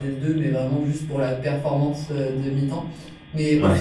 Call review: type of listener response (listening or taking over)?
listening